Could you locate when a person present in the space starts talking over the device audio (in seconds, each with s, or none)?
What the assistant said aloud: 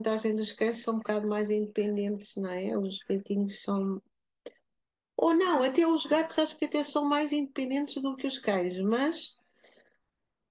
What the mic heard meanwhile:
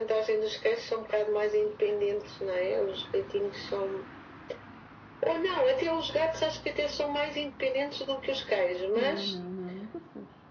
8.9 s